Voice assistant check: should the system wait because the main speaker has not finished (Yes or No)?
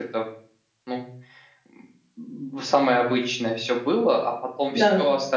Yes